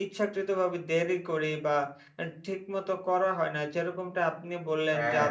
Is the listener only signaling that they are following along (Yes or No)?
Yes